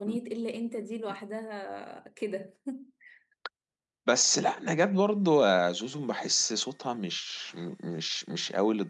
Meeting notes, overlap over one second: none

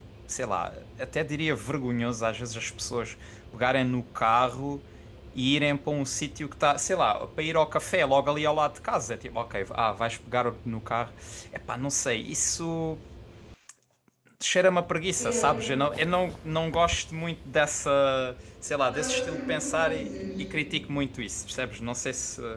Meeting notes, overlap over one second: present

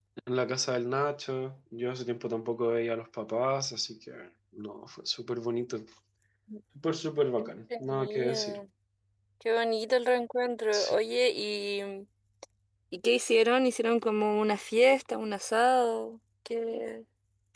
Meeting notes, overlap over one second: present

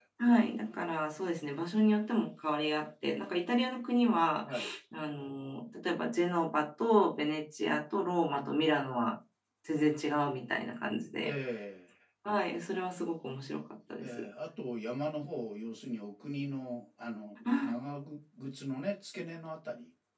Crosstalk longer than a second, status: none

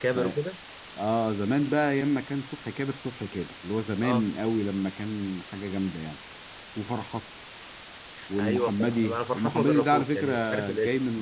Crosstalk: present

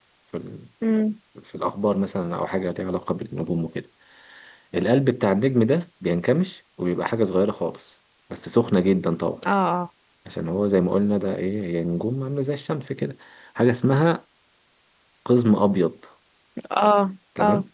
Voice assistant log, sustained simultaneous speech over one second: none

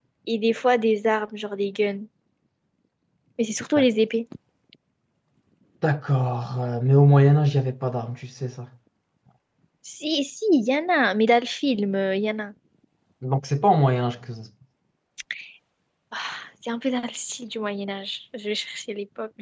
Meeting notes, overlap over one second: none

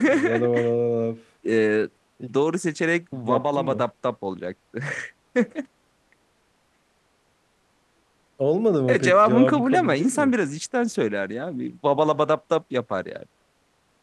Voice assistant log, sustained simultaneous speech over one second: present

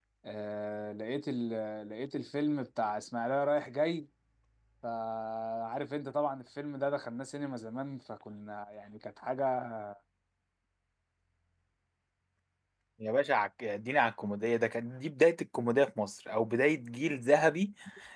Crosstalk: none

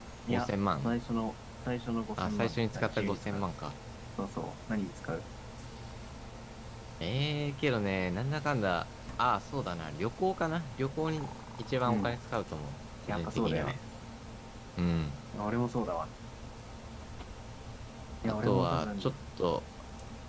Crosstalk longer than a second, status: present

